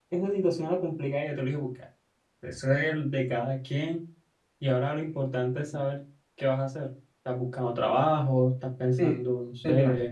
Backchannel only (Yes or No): No